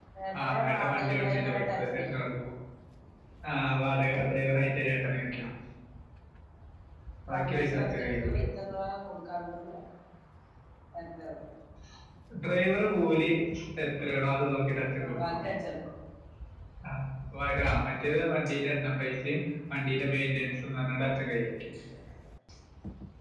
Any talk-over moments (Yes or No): Yes